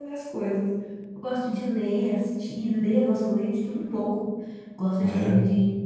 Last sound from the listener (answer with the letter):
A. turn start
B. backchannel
B